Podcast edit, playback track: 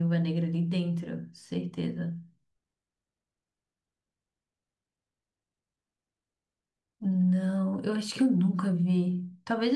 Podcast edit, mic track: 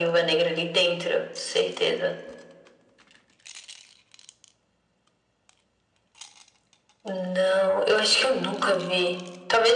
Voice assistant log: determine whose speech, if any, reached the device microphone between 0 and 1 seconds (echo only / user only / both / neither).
echo only